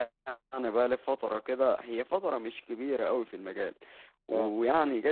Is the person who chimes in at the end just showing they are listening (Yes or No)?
Yes